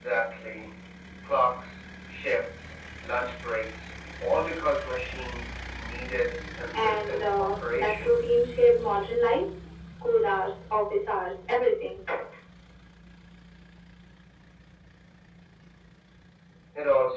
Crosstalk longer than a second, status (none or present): present